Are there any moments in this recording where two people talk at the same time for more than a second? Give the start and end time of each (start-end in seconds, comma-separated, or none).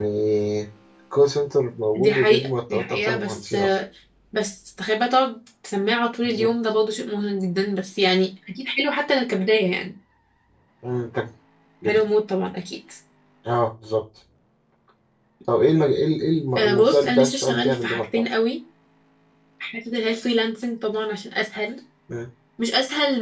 1.9-3.5, 16.6-18.2